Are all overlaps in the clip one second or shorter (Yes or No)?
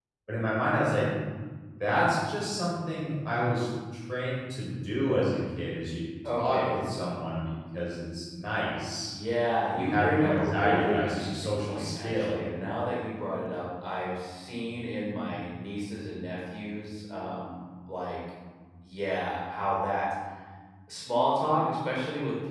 No